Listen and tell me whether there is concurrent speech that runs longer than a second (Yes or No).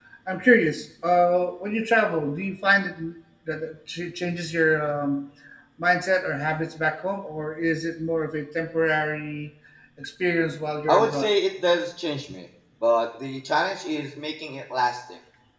No